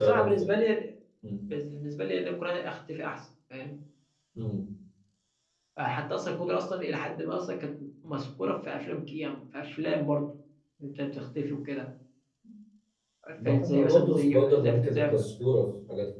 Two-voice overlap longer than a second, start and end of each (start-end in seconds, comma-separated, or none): 13.4-15.1